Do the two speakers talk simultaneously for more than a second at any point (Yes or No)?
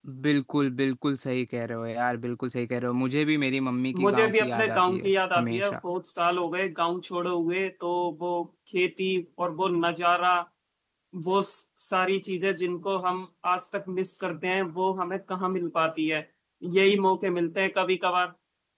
Yes